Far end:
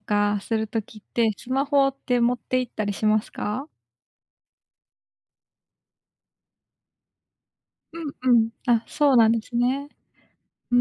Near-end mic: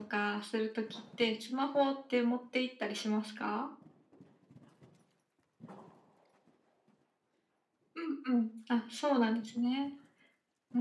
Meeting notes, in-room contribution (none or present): none